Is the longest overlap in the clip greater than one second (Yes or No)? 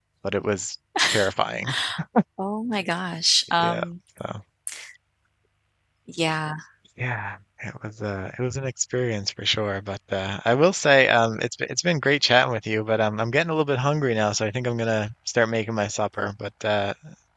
No